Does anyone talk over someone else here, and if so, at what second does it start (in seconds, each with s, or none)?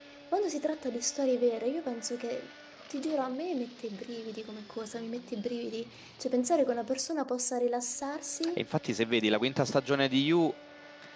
none